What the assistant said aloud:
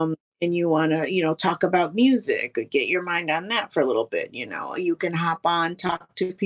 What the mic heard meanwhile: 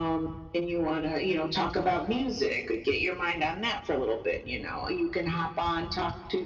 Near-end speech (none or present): none